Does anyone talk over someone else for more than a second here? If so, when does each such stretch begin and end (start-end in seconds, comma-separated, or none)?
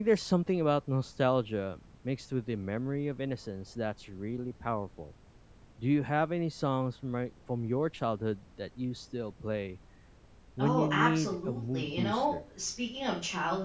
10.6-12.3